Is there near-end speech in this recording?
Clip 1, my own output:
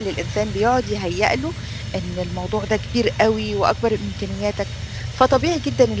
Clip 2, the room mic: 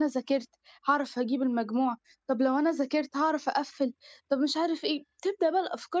Yes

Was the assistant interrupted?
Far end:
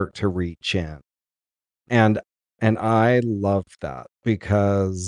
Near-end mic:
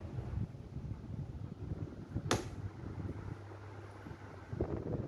No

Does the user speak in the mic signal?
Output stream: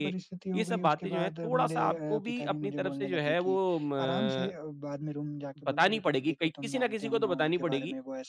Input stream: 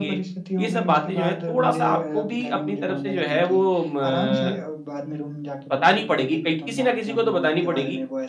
No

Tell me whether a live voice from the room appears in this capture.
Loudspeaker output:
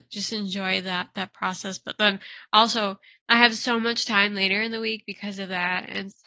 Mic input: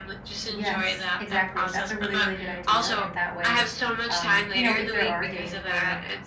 Yes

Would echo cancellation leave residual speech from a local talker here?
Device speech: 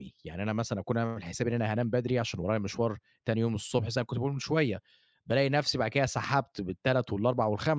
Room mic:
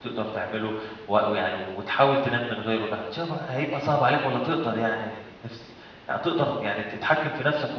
Yes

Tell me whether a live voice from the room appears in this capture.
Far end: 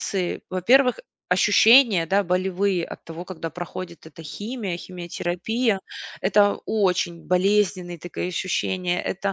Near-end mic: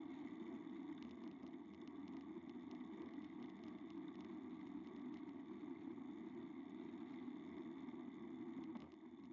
No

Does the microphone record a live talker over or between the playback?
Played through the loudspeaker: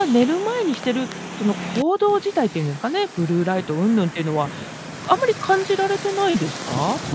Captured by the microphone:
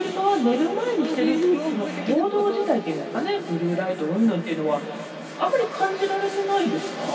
Yes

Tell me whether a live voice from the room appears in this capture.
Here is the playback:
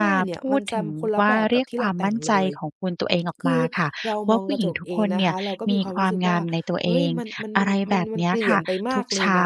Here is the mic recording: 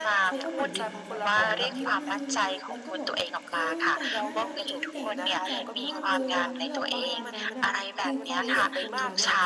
Yes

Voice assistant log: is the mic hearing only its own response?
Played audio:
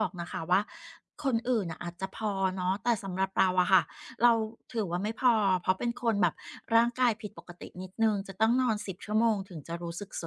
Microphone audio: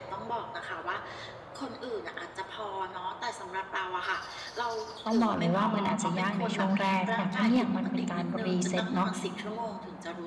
No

